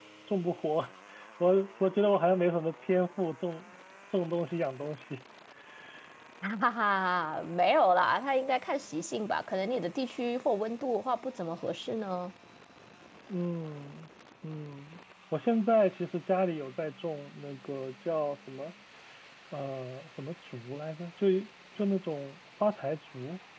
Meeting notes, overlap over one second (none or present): none